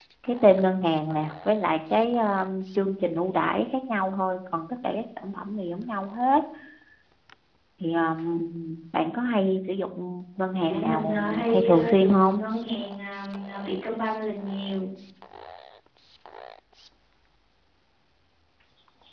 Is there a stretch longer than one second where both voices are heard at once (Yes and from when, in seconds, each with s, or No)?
Yes, from 10.6 s